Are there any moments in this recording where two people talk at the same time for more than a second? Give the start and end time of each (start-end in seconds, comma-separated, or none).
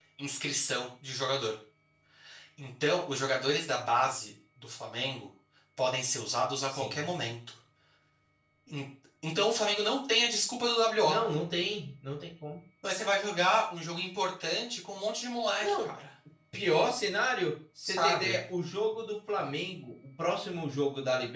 none